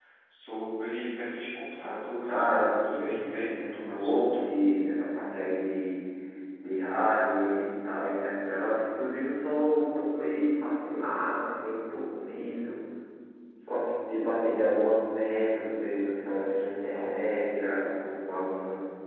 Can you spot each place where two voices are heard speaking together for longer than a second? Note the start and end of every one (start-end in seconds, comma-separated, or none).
2.3-4.5